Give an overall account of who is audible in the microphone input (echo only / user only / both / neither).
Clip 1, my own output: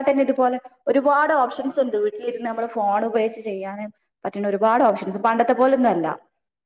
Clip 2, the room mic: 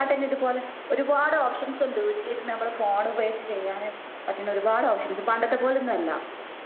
echo only